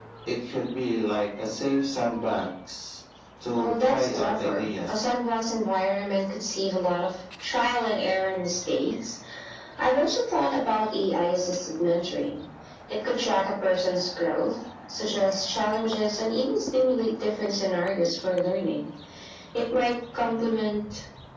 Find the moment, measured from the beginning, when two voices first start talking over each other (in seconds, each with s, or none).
3.5 s